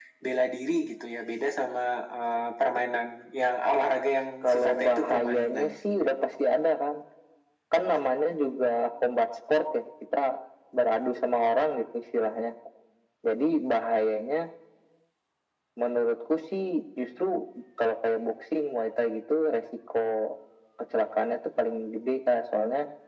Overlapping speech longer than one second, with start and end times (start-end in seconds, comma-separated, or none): 4.4-5.7